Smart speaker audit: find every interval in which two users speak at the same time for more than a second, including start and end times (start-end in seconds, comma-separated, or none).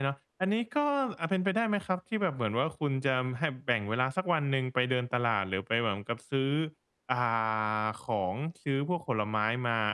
none